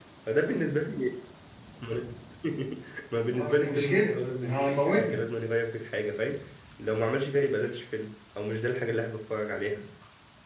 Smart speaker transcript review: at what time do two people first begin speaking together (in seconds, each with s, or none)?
3.3 s